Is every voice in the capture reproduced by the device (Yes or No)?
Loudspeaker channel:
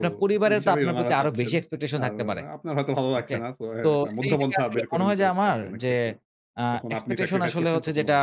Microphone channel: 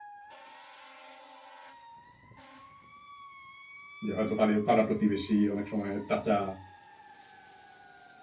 No